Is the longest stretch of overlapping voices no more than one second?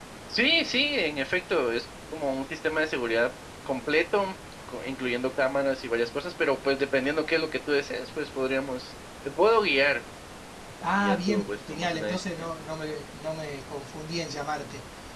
No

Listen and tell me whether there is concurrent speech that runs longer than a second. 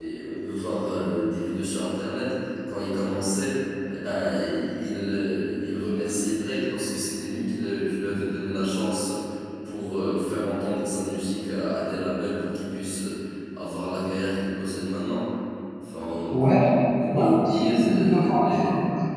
Yes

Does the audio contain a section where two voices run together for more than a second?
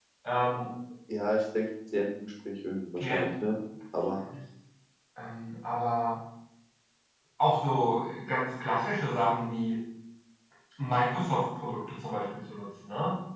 No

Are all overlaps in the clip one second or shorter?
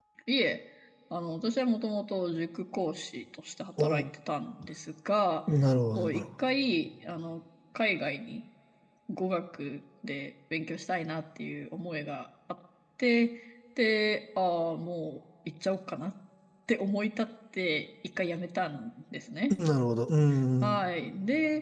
Yes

